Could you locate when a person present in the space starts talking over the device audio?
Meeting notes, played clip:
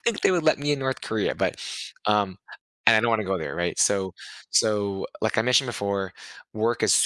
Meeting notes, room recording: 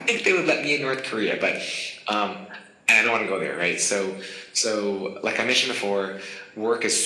none

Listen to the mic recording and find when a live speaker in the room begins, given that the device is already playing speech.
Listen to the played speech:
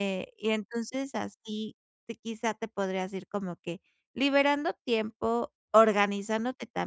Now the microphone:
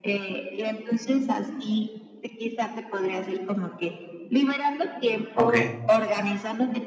5.3 s

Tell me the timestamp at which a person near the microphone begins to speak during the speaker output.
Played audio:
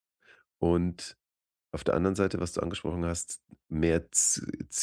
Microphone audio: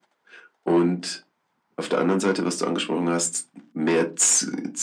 none

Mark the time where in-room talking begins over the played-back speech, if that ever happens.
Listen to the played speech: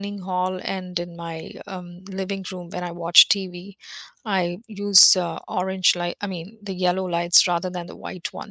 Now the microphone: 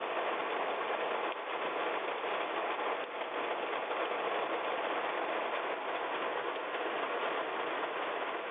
none

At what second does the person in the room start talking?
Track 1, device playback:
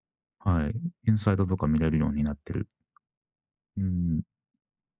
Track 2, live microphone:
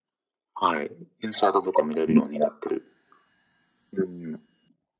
none

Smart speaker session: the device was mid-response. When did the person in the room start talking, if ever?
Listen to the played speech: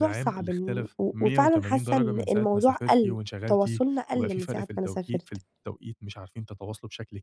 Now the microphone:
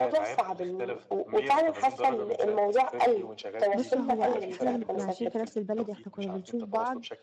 3.7 s

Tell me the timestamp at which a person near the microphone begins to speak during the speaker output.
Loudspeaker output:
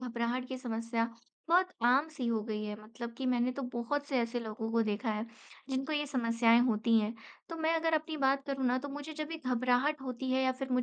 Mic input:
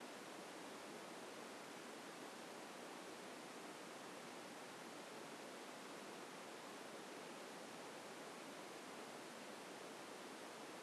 none

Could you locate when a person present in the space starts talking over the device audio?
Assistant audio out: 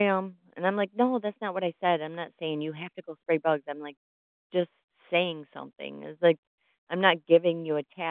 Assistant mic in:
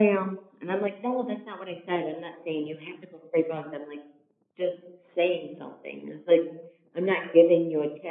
none

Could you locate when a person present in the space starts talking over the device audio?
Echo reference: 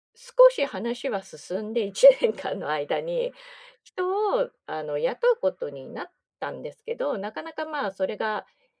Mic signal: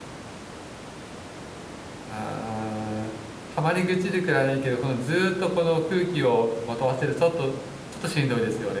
2.1 s

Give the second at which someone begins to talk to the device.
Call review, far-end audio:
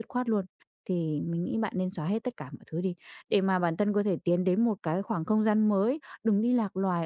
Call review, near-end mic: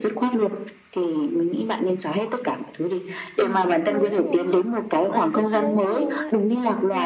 3.4 s

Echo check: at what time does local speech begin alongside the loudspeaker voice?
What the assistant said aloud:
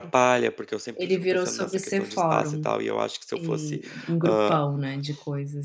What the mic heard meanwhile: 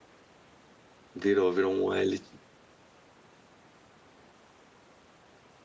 1.1 s

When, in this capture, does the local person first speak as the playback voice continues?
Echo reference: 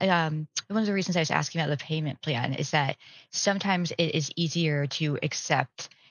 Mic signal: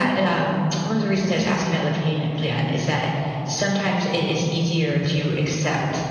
none

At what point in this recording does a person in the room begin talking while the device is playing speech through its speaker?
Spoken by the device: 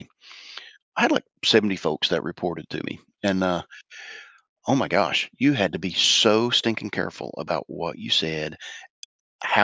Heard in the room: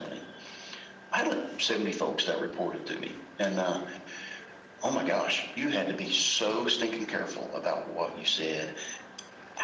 none

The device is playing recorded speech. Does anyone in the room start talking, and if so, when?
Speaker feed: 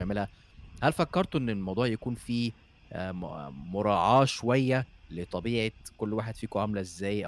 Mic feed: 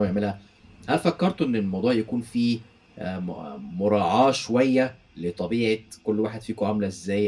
none

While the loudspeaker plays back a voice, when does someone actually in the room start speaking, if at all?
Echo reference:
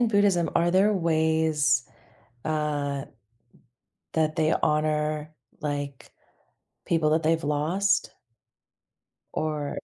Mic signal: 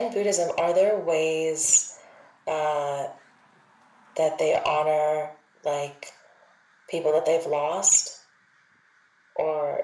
none

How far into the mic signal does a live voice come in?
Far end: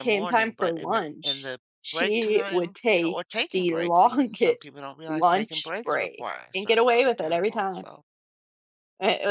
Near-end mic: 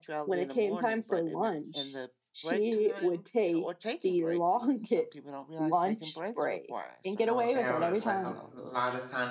7.2 s

